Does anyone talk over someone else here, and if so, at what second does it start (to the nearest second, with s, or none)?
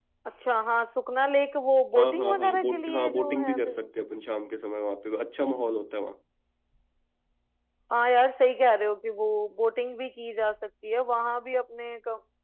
2 s